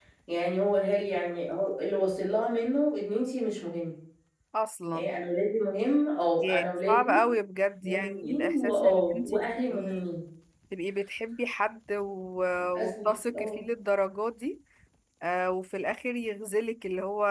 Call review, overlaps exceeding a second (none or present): present